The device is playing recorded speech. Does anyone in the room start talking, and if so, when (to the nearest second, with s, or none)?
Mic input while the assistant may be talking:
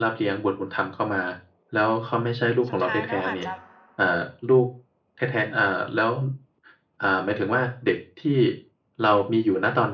3 s